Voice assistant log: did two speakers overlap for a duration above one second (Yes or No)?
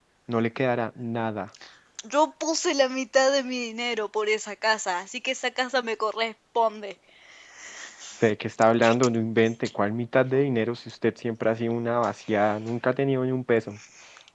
No